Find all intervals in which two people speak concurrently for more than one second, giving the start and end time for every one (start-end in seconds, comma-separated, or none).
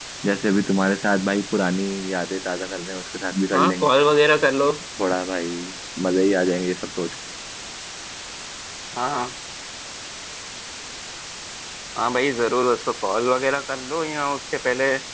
none